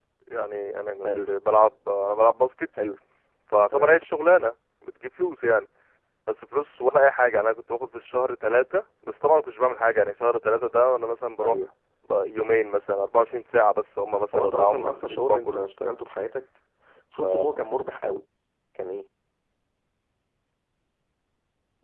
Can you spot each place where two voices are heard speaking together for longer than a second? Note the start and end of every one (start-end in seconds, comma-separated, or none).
14.3-15.6